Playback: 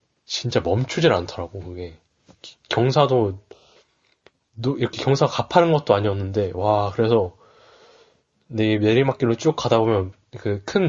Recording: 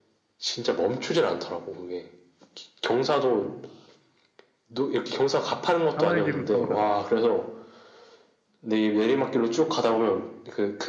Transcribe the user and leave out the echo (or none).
사나이식으로 타버렸다.